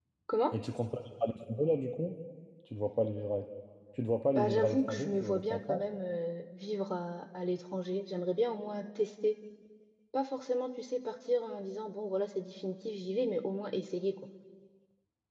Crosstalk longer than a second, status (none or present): present